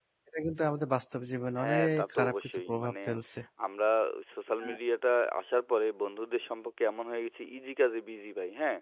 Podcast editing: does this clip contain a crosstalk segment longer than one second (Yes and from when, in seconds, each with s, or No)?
Yes, from 1.6 s